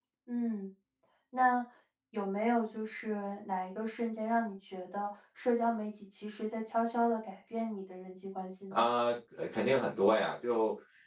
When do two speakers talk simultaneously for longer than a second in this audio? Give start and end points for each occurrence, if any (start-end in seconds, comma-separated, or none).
none